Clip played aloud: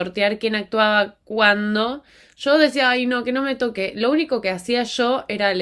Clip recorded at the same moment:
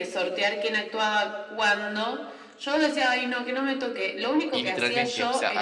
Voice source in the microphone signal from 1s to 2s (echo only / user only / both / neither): echo only